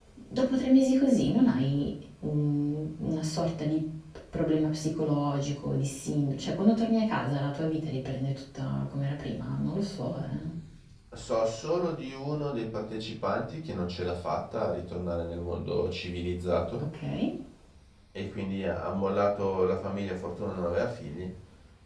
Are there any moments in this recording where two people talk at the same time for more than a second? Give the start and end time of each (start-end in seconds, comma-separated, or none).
none